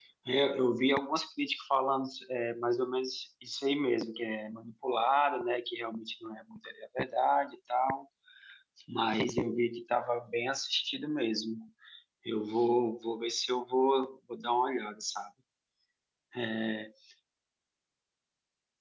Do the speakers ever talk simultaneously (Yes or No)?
No